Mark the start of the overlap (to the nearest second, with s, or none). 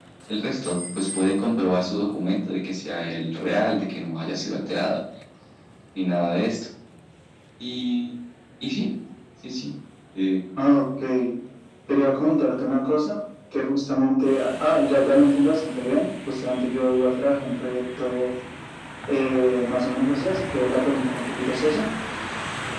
none